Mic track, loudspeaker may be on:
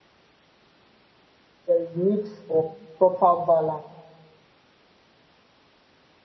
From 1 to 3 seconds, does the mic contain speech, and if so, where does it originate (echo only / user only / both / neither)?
user only